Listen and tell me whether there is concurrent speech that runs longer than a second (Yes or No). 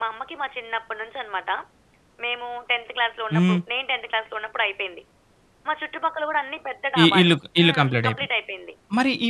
Yes